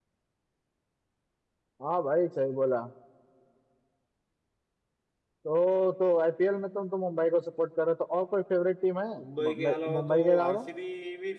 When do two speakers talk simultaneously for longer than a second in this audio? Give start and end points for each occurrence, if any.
9.2-10.7

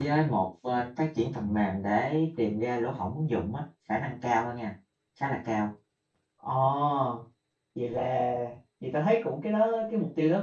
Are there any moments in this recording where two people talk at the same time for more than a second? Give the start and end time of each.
none

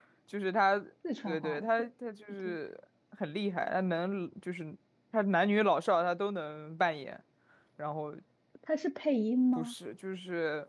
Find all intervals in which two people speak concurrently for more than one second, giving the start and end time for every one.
none

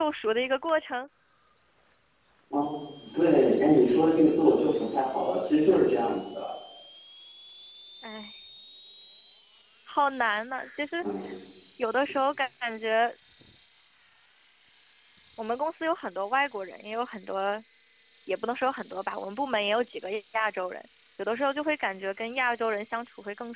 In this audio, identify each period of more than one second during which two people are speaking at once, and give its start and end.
none

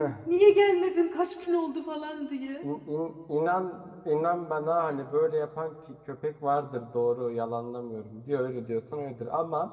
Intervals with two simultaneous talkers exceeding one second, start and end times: none

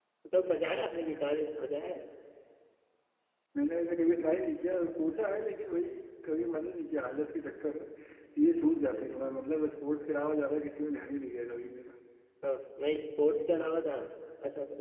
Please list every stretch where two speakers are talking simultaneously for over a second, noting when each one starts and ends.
none

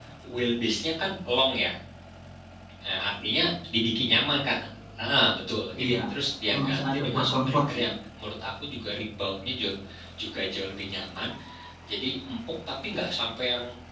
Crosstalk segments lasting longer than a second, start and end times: 6.5-7.9

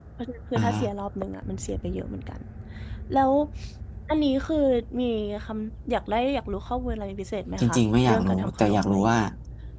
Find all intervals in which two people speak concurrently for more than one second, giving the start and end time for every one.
7.6-9.2

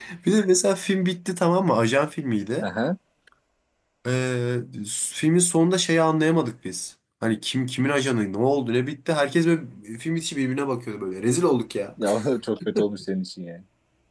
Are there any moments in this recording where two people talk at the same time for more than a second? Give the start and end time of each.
none

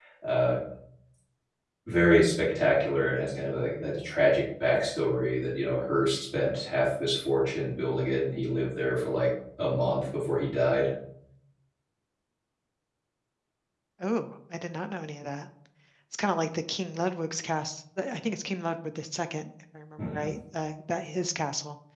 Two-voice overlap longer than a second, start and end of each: none

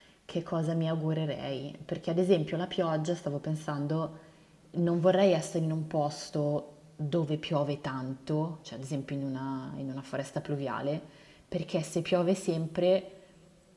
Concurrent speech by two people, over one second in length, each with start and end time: none

